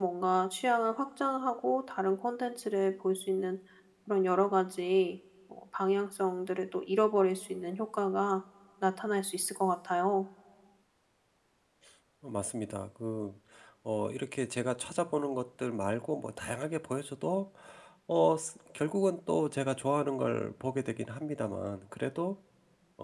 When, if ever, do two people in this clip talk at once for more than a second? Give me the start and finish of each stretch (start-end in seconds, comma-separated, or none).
none